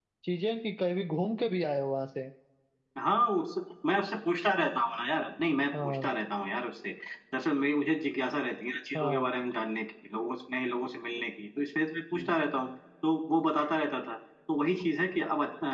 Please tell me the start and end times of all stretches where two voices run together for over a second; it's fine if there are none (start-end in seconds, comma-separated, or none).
none